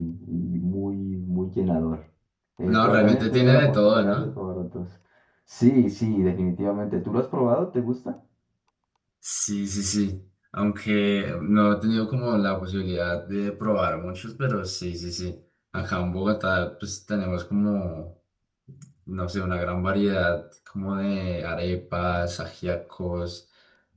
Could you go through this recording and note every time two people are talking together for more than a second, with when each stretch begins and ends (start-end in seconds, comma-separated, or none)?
2.7-4.4